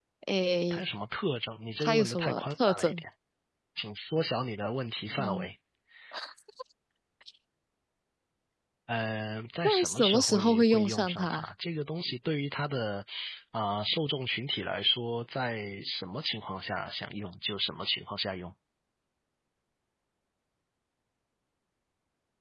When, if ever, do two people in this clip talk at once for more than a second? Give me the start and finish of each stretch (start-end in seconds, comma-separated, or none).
1.8-3.0, 9.6-11.5